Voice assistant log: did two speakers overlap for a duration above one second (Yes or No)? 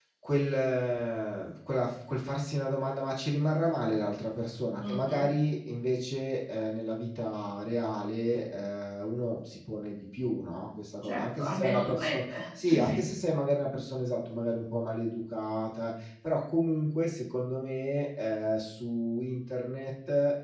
Yes